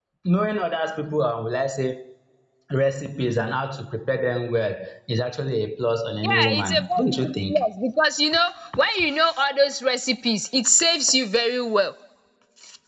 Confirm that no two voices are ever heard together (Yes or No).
No